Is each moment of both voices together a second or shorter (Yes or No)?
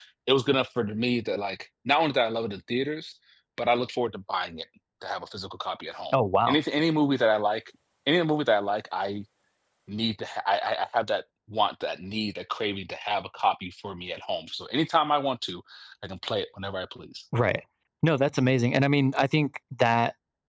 Yes